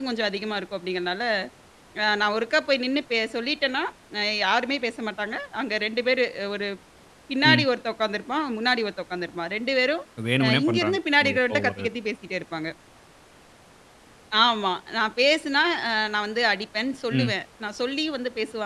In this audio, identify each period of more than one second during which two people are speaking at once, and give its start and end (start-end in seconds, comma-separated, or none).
10.4-11.9